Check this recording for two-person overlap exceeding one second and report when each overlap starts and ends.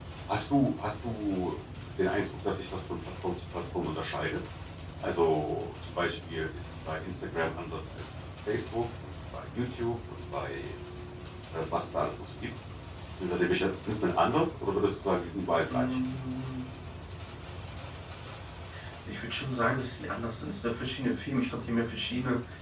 none

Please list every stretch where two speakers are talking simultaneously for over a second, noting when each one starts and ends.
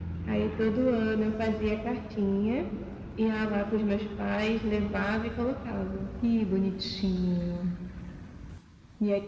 none

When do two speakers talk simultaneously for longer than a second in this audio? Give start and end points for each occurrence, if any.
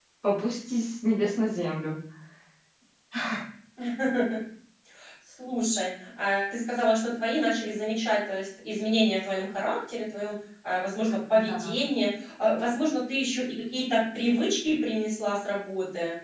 none

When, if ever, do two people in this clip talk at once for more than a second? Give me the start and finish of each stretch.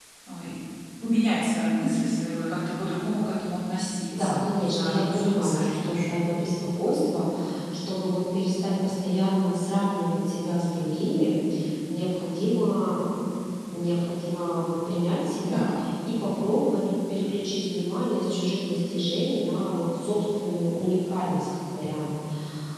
4.1-6.0

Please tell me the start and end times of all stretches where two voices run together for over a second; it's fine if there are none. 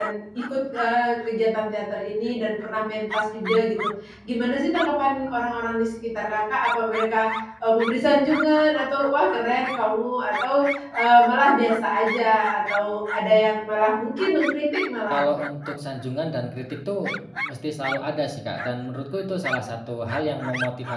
none

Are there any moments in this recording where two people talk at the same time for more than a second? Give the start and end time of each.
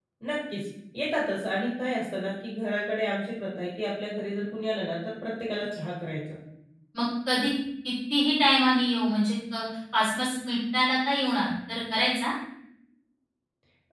none

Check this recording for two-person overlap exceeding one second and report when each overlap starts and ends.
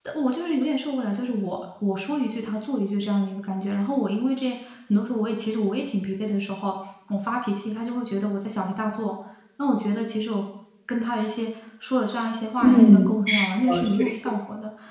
12.6-14.1

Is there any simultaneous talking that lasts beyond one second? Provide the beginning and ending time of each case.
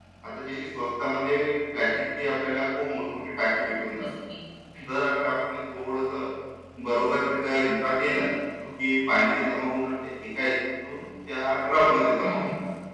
none

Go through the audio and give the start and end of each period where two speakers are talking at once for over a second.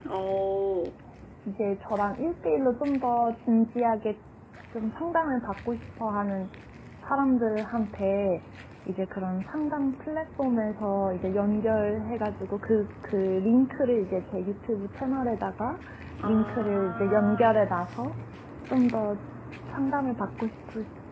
16.2-17.6

